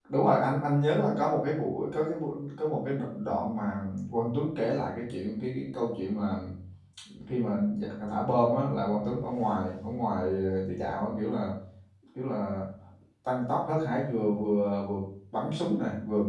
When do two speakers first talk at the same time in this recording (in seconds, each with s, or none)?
none